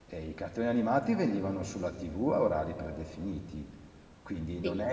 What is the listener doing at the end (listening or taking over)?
listening